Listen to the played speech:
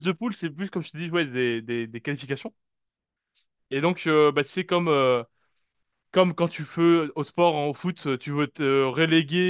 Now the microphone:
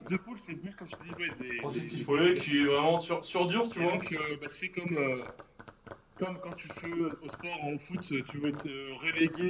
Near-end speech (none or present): present